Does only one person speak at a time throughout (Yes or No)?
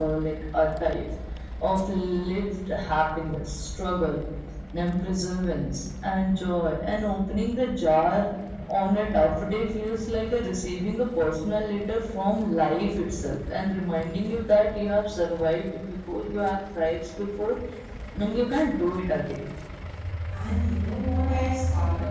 Yes